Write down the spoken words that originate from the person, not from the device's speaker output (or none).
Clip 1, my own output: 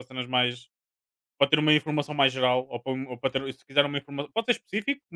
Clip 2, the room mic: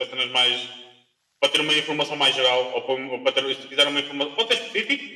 none